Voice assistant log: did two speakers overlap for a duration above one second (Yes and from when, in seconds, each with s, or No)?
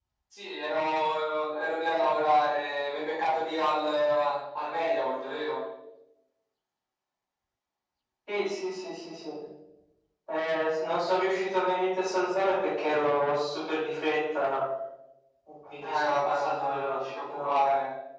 Yes, from 15.8 s